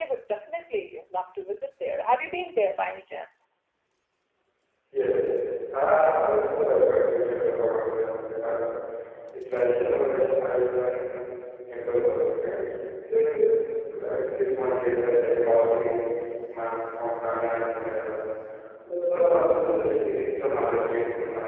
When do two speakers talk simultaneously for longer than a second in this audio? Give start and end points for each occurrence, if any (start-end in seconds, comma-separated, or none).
none